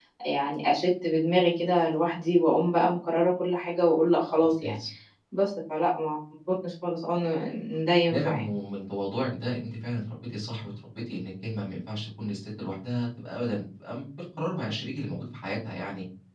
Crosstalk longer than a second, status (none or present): none